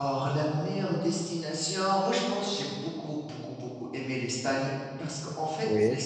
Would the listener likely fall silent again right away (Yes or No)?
Yes